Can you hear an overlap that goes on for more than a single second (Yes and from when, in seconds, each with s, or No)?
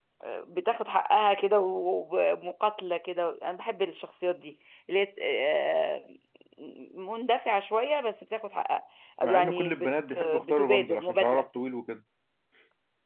Yes, from 9.2 s